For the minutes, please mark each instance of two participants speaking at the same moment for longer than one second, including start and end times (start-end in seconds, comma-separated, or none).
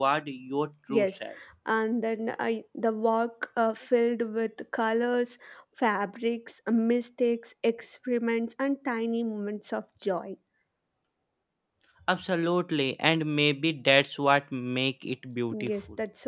none